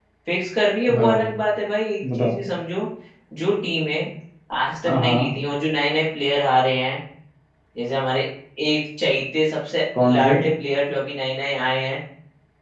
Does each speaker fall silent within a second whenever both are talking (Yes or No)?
Yes